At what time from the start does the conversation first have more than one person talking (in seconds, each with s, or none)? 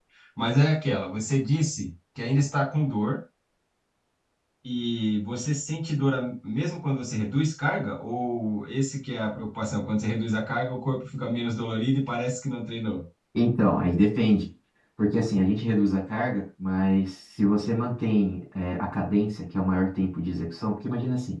none